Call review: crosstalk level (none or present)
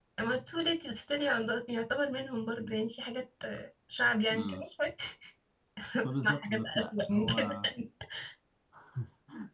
present